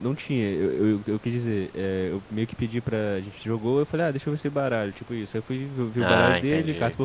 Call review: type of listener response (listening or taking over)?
listening